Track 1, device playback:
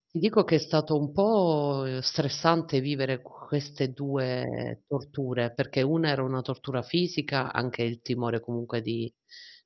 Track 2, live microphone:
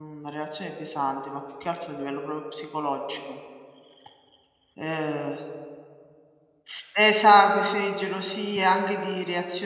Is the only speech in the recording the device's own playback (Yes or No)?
No